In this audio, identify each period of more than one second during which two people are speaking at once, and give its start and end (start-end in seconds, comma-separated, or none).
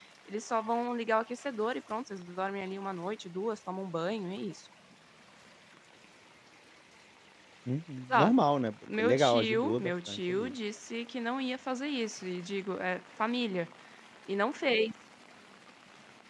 9.0-10.5